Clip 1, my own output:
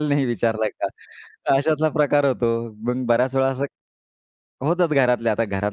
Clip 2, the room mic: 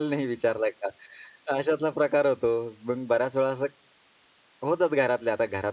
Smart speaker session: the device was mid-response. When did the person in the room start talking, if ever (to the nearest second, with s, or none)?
none